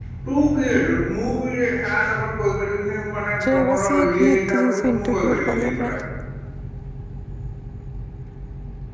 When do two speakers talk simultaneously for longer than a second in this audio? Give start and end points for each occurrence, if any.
3.4-6.0

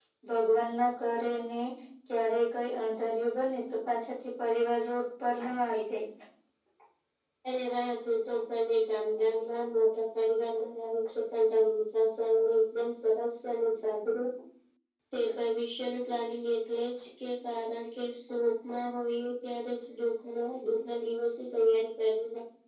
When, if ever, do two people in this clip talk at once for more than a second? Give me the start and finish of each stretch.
none

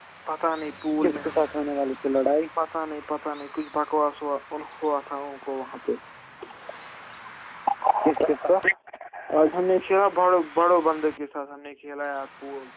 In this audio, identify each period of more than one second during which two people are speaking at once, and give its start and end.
none

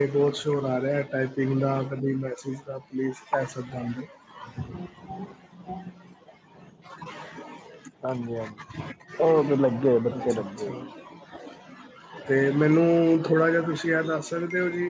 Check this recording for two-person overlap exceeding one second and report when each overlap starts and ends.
9.2-10.8

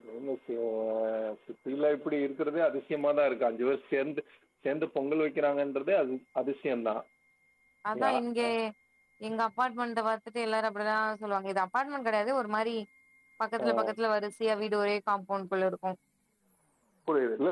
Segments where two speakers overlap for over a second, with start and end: none

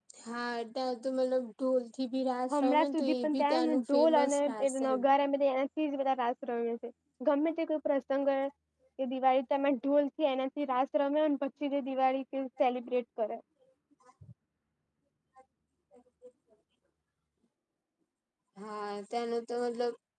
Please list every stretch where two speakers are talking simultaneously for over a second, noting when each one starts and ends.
2.5-5.0

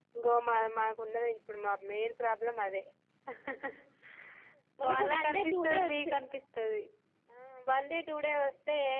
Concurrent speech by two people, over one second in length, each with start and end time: 4.9-6.1

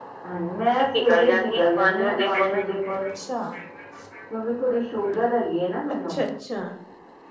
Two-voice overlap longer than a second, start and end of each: 0.9-2.6

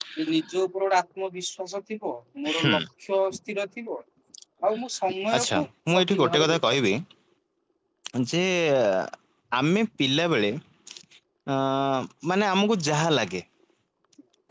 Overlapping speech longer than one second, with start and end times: 5.4-6.8

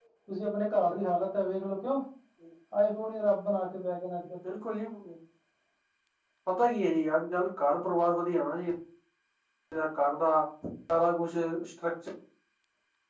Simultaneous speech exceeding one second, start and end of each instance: none

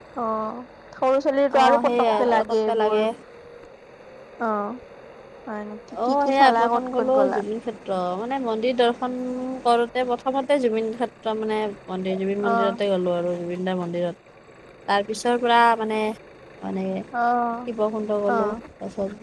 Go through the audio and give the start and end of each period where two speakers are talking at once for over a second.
1.6-3.0, 6.1-7.4

